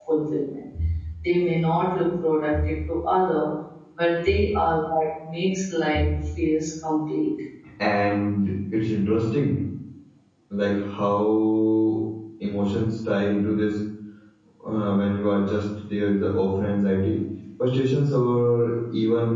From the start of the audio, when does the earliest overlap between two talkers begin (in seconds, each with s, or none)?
none